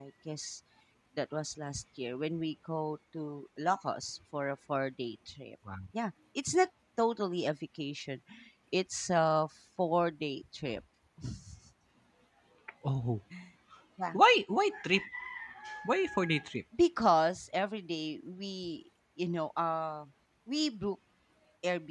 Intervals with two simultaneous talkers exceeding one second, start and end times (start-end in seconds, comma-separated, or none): none